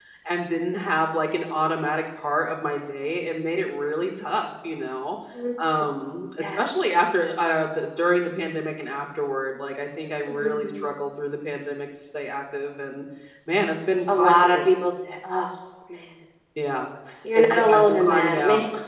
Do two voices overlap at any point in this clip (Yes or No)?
Yes